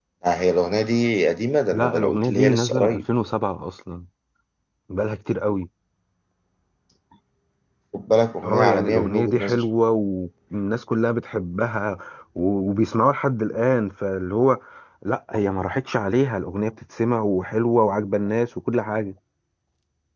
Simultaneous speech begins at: 2 s

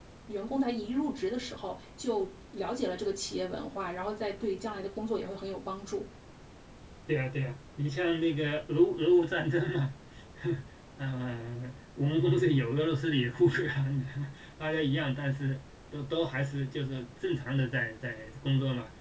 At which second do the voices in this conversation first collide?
none

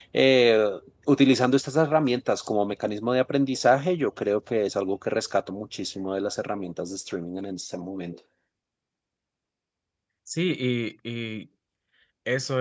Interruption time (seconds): none

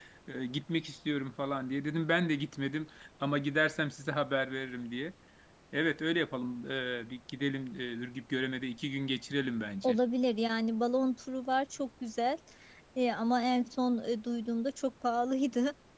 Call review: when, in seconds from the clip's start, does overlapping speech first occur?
none

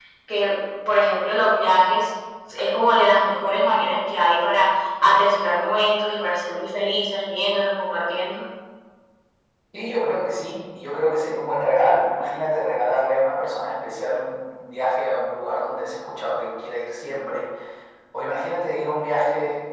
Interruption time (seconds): none

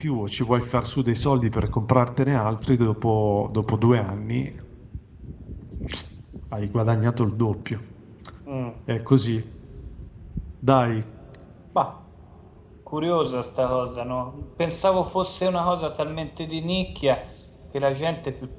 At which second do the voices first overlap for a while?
none

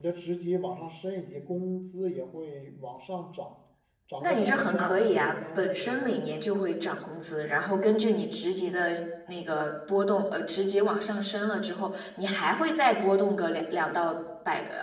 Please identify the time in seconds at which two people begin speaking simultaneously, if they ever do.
4 s

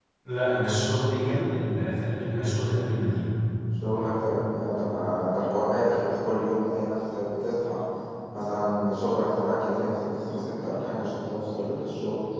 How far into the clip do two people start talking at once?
none

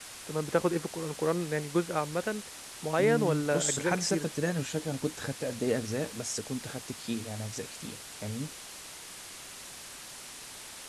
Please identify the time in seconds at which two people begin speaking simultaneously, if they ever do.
3 s

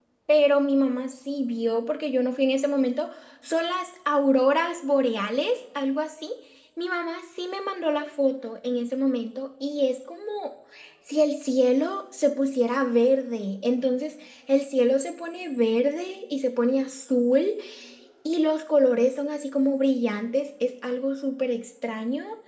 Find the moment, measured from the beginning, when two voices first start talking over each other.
none

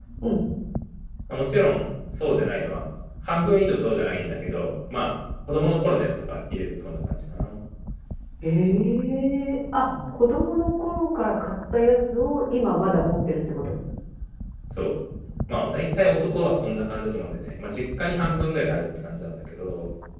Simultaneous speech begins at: none

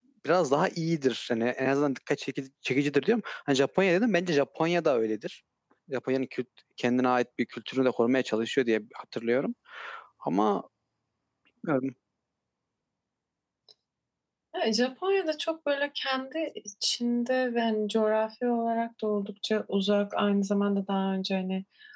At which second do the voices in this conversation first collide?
none

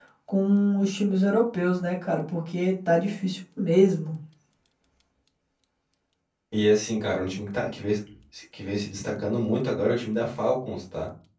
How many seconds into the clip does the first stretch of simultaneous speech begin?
none

